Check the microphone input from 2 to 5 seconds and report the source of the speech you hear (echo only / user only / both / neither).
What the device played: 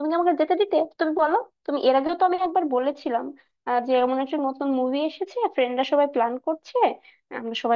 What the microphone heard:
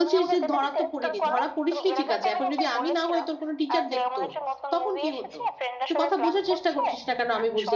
both